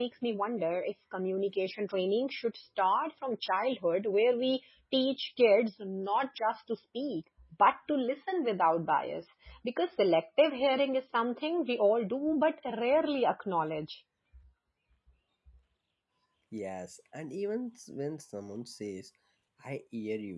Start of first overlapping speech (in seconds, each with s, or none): none